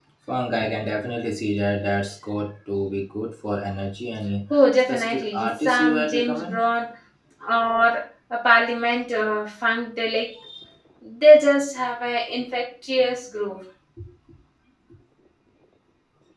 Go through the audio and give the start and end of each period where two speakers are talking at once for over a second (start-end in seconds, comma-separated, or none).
4.5-6.6